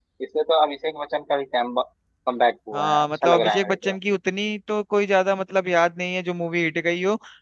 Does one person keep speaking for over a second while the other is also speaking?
Yes, from 2.7 s

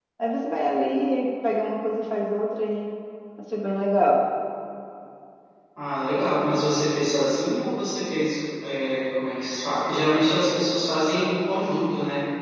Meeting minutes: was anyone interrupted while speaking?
No

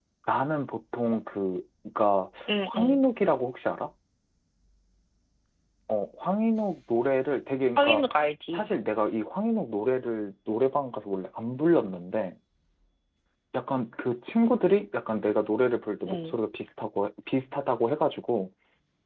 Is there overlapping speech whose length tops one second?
No

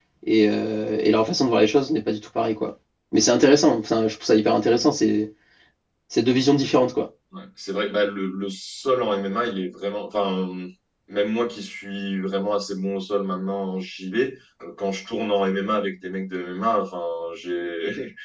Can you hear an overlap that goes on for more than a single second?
No

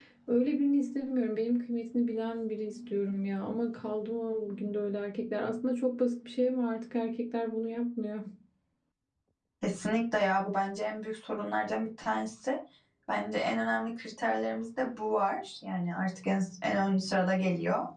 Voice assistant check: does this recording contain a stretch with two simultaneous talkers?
No

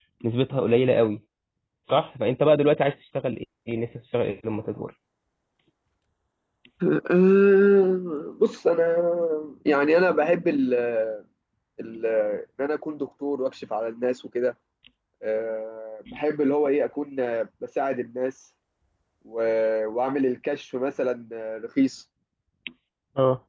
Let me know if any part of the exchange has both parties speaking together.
No

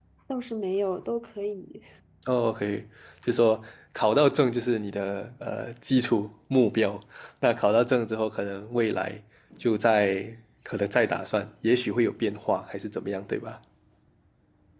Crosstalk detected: No

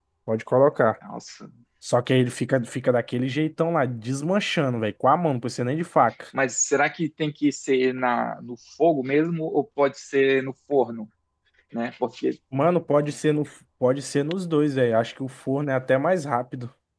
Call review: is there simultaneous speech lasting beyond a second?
No

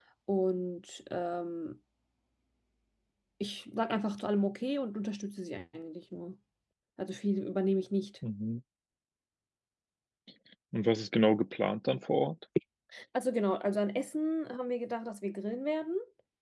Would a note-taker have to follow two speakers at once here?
No

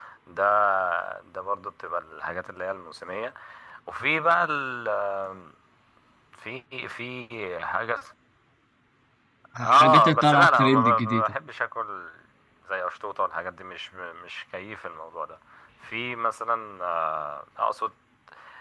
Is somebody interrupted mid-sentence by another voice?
Yes, from 9.8 s

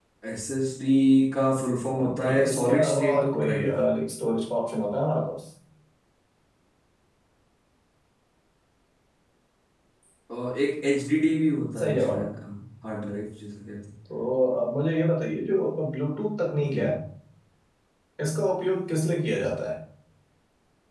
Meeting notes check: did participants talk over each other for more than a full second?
Yes, from 2.0 s

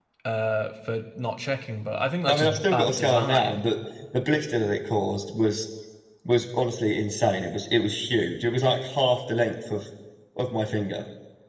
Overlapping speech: Yes, from 2.3 s

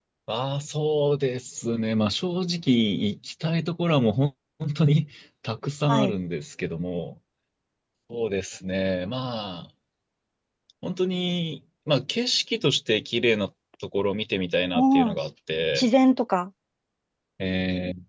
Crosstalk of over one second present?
No

